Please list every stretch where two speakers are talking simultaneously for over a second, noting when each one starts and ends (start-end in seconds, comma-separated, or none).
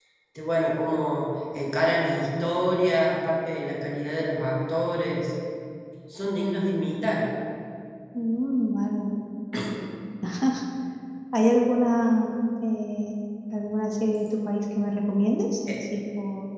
none